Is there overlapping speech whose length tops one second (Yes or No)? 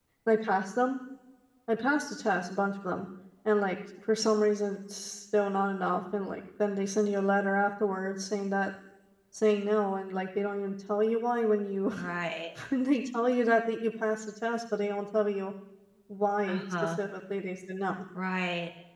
No